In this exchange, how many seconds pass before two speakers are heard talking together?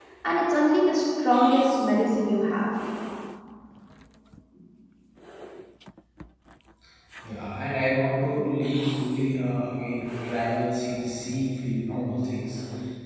none

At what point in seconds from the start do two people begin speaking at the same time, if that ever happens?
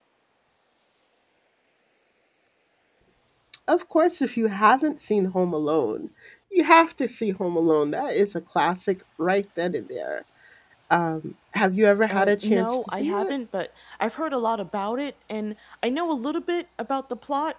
12.1 s

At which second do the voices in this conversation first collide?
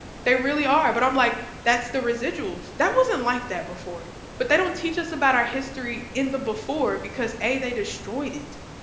none

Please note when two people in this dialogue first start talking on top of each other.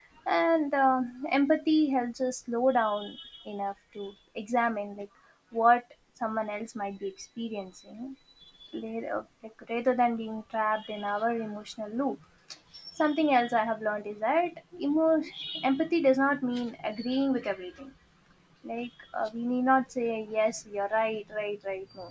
none

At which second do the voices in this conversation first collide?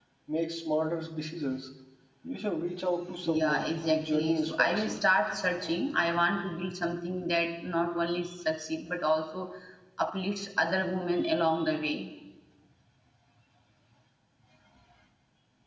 3.3 s

